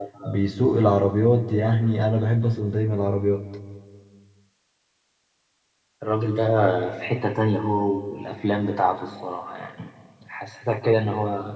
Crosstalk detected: No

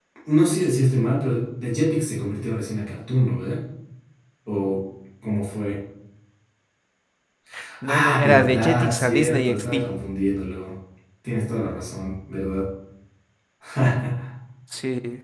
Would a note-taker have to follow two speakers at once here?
Yes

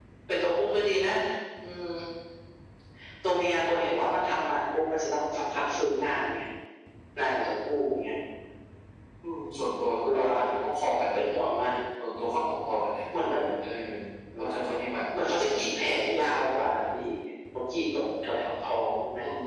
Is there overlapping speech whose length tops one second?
No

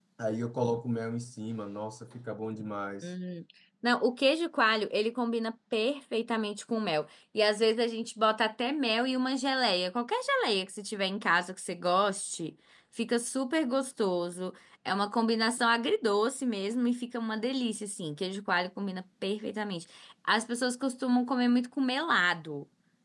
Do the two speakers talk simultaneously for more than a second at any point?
No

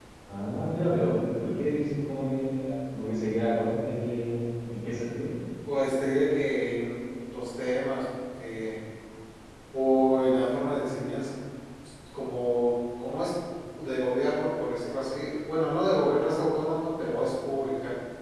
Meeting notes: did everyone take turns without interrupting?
Yes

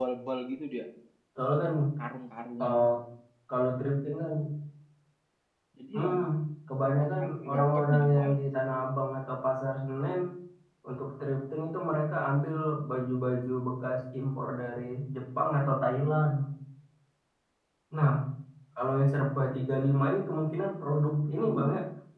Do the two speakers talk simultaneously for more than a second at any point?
Yes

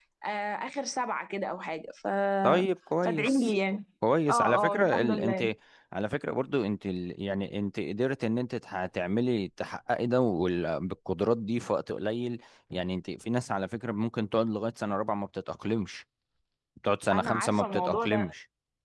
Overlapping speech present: Yes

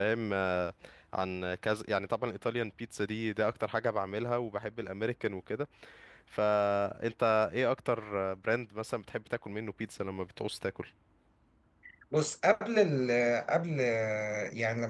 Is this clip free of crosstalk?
Yes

